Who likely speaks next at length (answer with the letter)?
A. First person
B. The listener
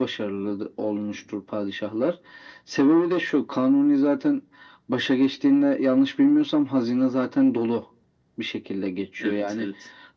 A